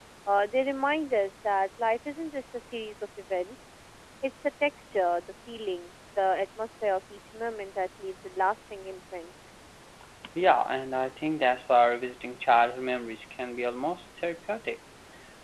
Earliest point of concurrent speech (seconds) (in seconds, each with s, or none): none